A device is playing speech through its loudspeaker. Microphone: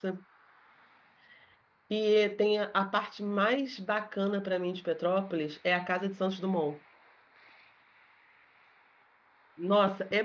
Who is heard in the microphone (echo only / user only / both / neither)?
user only